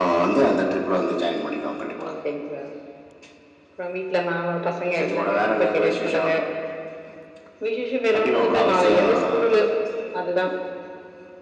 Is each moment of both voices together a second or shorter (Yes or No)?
No